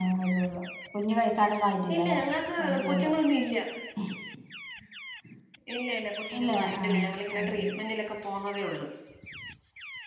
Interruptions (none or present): present